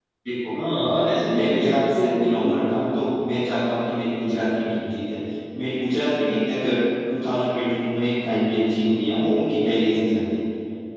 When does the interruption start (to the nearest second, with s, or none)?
1 s